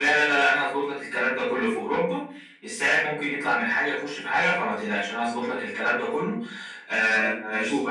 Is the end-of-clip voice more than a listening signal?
No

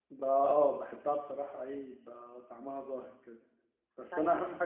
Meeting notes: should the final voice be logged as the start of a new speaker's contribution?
No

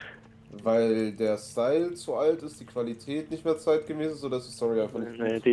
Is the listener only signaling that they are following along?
No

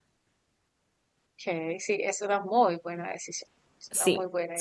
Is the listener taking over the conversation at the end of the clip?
Yes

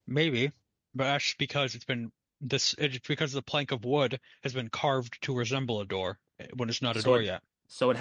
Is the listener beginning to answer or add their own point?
Yes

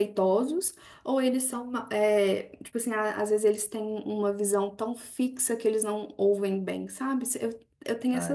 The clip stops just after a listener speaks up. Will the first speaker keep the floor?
No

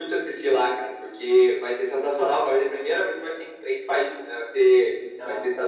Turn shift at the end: No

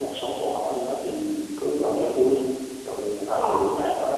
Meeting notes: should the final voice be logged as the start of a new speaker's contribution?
No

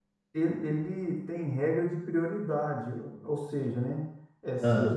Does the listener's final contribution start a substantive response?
No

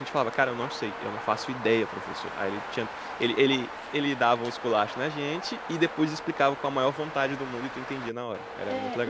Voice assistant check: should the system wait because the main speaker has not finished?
No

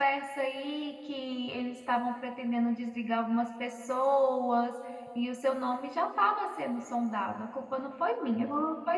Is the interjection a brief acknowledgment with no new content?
No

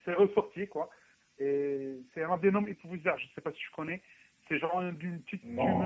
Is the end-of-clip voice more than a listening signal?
No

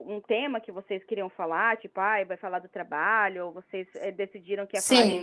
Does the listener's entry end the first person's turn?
Yes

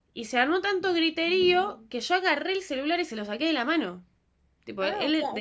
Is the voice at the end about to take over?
Yes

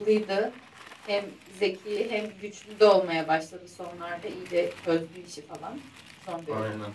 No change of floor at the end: Yes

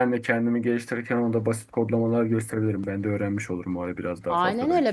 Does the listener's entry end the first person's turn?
Yes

